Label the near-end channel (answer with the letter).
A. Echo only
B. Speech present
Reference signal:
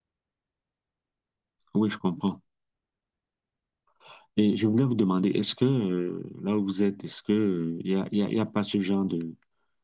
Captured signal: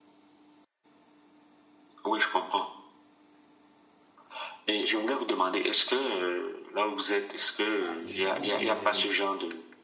B